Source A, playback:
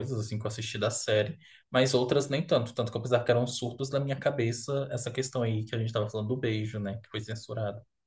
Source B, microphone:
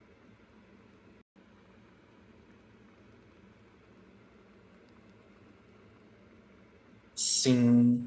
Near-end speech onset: 7 s

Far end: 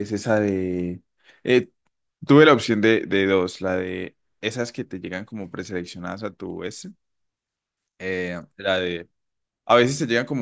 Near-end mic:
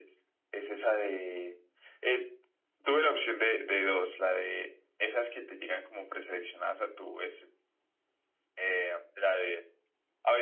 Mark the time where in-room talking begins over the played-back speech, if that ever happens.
none

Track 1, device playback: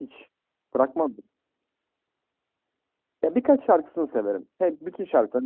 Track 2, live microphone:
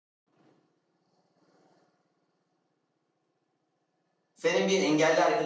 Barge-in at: 4 s

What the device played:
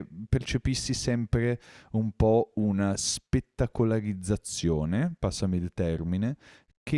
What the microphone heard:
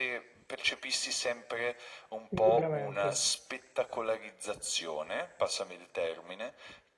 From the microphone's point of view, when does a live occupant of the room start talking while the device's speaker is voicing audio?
2 s

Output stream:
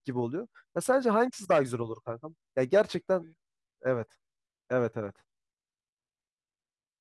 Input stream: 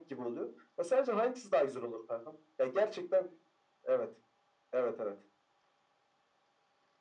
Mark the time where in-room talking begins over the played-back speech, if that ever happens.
none

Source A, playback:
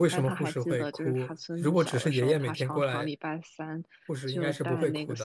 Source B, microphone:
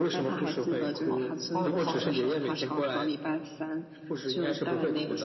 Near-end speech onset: 1 s

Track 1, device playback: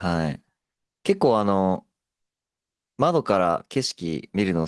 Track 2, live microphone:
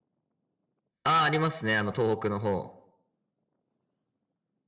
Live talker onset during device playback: 1 s

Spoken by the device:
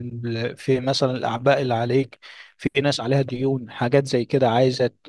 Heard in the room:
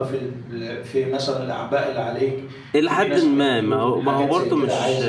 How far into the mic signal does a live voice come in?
3 s

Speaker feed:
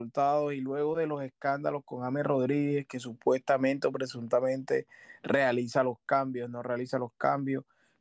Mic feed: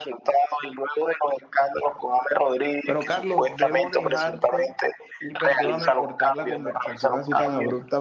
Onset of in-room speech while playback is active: 3 s

